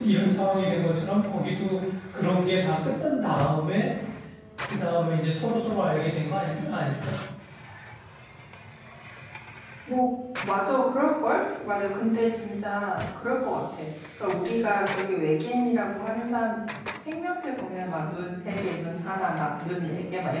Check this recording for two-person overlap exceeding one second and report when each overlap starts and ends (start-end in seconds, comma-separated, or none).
none